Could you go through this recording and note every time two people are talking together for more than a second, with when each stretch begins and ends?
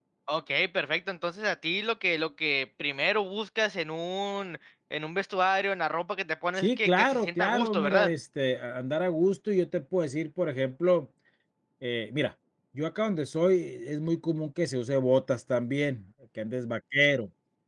6.5-8.1

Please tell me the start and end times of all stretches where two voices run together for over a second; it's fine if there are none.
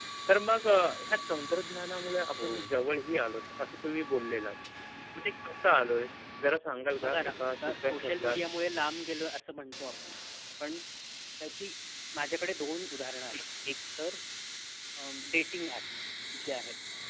7.0-8.4

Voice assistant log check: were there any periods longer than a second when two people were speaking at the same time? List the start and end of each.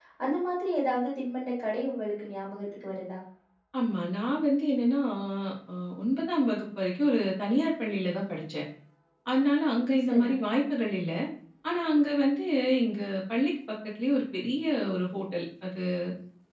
none

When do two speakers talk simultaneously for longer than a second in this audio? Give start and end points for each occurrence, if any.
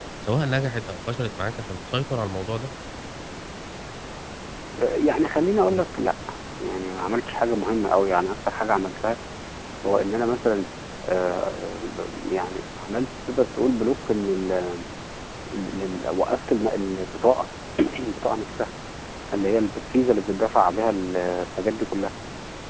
none

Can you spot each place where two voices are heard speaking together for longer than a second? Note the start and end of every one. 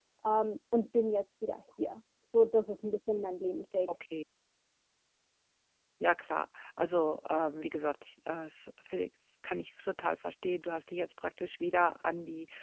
none

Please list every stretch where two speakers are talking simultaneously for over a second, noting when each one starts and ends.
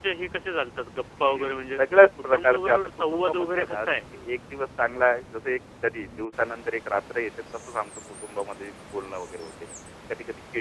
2.3-3.9

